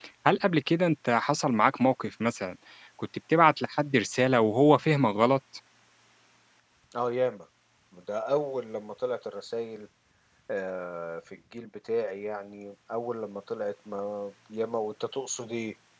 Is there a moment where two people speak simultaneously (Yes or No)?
No